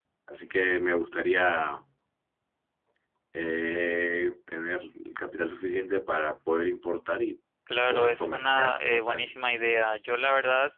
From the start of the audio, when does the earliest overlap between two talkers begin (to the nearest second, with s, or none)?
8 s